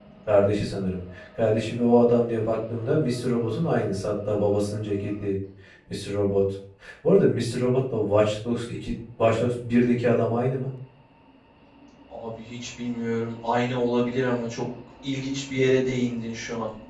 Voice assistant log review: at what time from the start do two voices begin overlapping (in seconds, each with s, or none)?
none